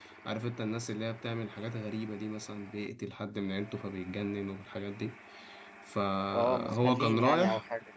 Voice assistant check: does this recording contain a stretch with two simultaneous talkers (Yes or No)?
Yes